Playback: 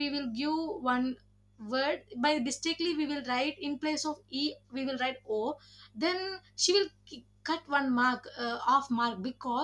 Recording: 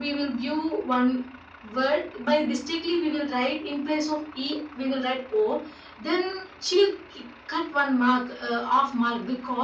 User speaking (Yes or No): No